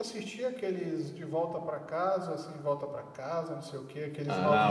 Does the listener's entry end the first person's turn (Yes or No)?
Yes